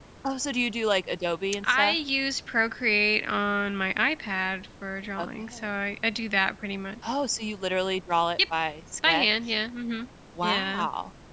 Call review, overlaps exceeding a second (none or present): none